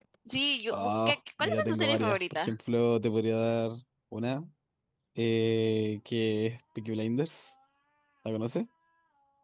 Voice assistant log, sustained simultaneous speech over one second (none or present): present